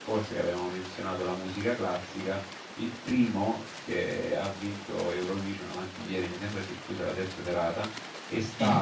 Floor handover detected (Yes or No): No